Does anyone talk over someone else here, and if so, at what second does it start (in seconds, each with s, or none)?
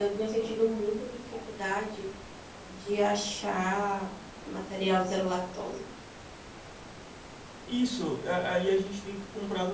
none